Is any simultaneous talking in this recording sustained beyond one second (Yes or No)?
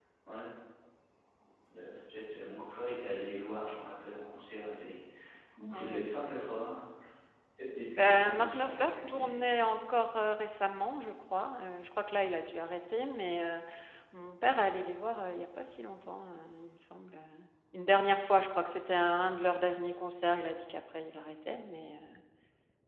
Yes